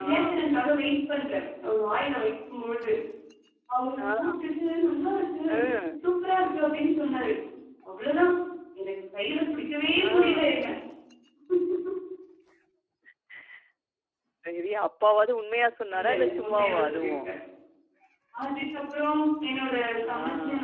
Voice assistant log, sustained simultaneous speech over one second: present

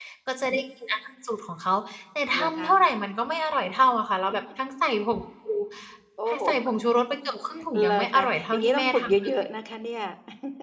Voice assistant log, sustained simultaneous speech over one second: present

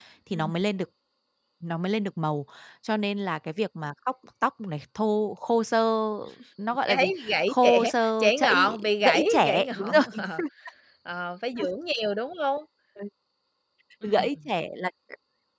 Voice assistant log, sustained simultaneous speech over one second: present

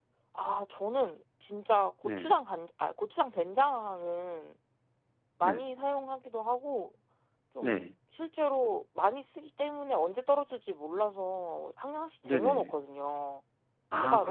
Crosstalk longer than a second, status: none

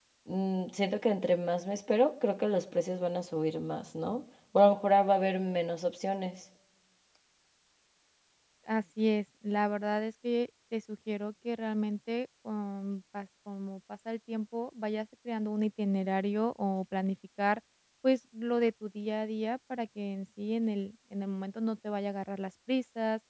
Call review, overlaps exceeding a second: none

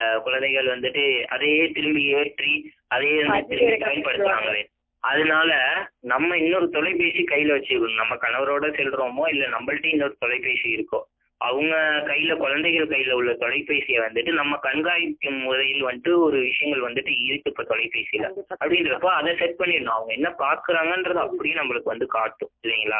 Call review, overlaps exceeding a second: present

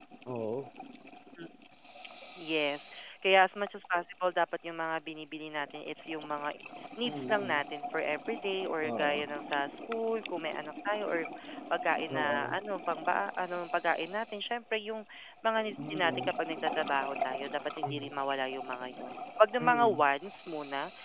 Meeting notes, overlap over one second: none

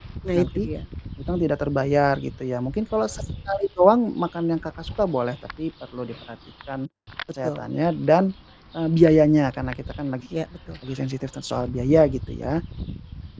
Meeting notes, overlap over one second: none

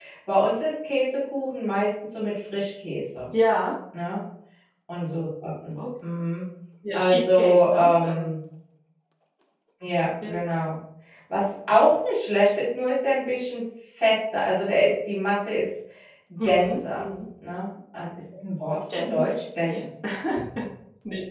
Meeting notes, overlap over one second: present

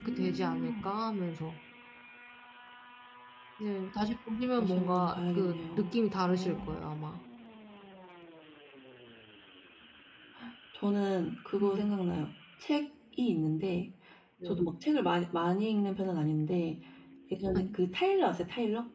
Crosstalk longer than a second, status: present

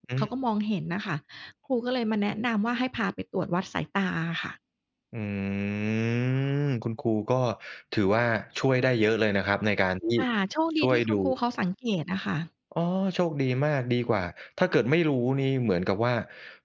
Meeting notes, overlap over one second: none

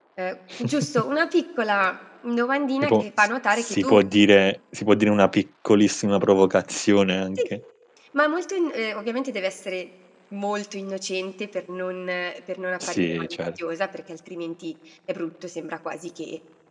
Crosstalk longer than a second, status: present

